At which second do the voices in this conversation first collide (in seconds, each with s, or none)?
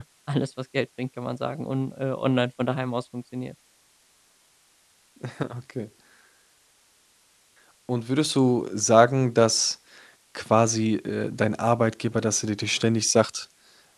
none